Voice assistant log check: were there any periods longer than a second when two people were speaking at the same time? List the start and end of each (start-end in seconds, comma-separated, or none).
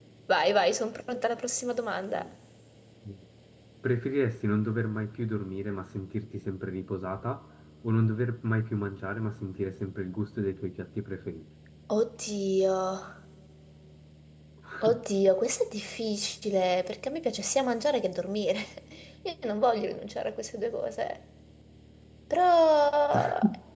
none